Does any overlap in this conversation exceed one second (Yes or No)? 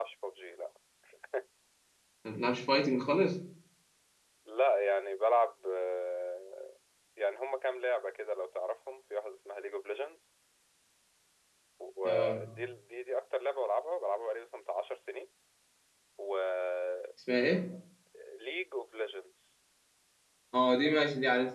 No